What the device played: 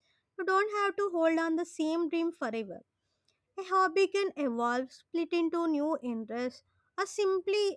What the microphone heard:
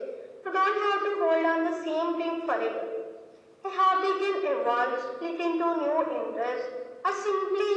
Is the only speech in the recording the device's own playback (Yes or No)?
Yes